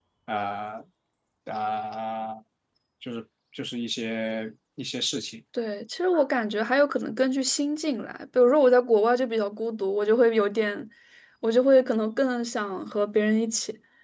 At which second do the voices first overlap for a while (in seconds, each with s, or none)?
none